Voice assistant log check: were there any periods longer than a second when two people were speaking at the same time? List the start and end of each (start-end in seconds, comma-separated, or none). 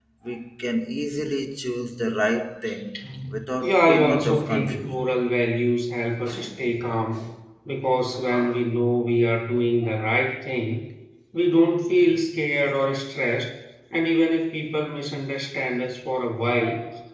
3.6-5.0